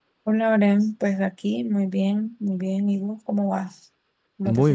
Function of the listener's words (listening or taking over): taking over